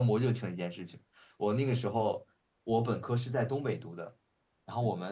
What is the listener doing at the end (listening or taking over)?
listening